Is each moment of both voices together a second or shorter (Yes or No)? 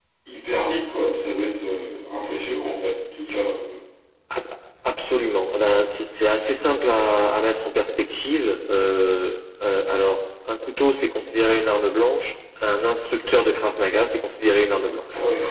Yes